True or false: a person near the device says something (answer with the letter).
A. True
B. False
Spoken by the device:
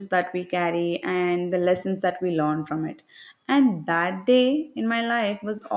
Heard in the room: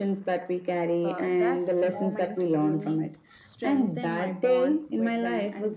A